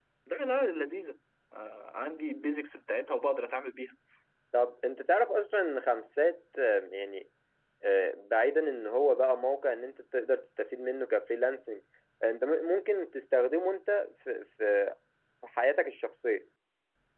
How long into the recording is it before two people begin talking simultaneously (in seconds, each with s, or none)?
none